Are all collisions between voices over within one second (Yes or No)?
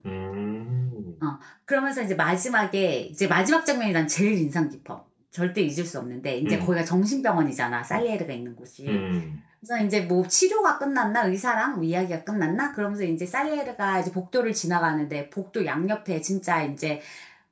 Yes